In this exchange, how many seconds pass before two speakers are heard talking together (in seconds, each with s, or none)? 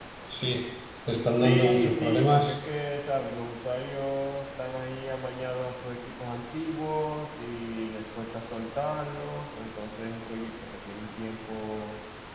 1.4 s